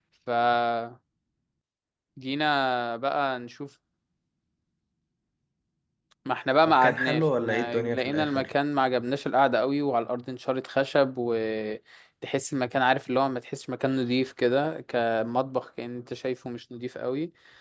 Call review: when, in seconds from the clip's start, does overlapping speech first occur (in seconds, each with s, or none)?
6.7 s